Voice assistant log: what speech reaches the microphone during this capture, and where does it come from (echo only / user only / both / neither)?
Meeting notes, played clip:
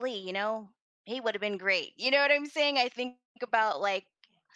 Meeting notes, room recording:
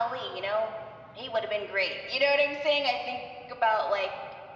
echo only